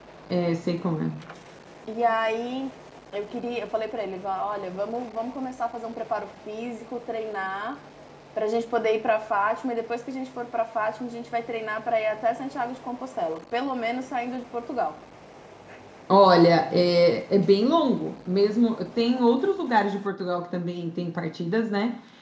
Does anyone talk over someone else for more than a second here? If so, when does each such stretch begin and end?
none

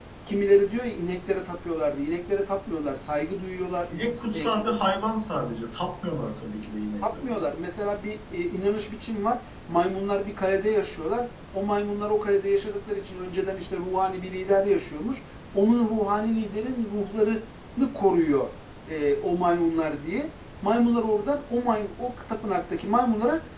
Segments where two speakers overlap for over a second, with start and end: none

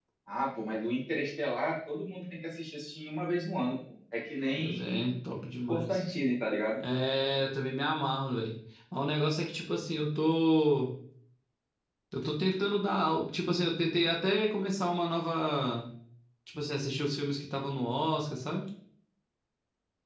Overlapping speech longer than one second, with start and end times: none

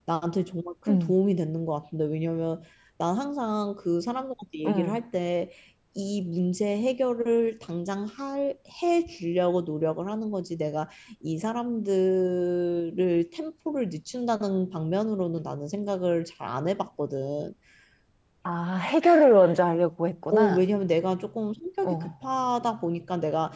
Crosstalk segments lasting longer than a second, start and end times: none

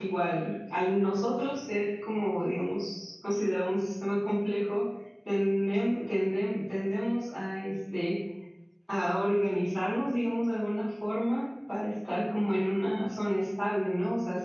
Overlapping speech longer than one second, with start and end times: none

